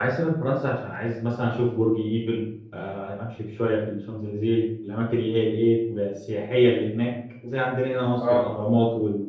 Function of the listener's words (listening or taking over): listening